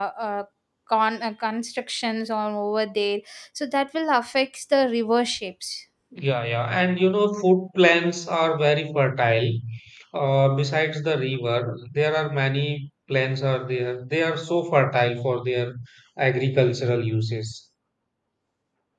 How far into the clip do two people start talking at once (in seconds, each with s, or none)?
none